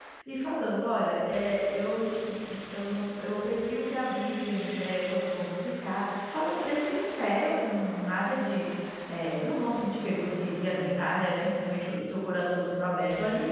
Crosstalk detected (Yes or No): No